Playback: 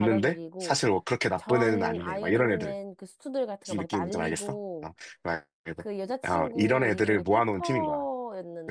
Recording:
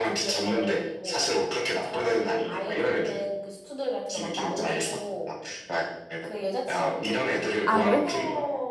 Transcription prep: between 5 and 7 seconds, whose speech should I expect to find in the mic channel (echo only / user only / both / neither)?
echo only